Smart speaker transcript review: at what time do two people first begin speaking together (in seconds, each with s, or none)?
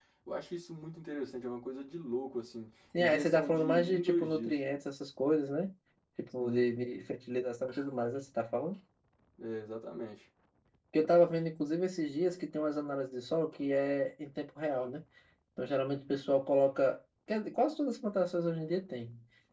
3.0 s